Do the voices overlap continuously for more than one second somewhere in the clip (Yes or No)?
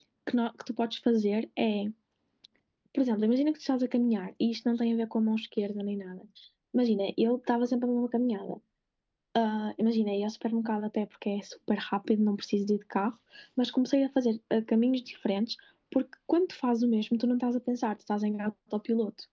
No